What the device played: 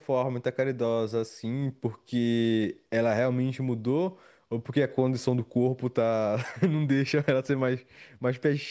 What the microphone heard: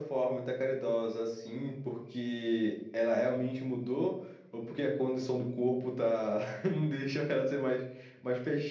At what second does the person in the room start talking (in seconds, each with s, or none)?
none